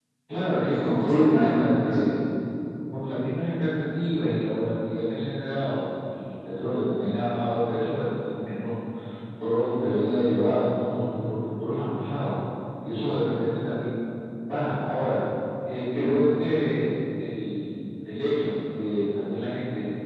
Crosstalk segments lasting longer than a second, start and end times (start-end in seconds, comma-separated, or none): 0.7-2.0